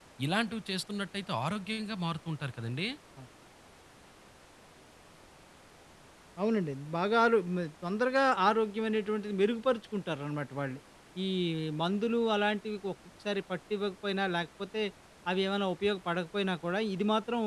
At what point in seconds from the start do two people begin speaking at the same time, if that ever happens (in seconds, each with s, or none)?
none